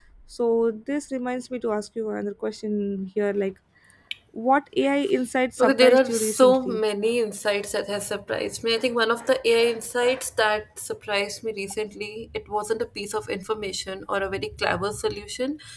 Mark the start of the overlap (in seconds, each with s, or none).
5.6 s